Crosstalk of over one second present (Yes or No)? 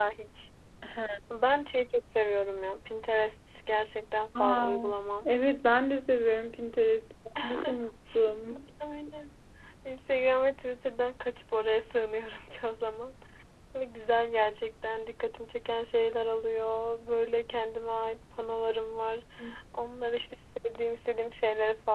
No